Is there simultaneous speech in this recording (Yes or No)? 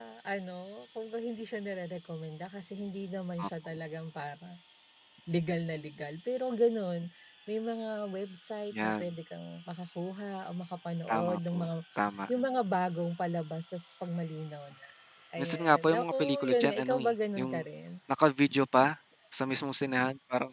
Yes